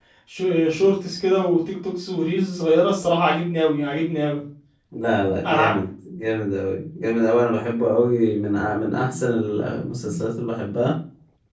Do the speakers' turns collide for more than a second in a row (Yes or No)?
No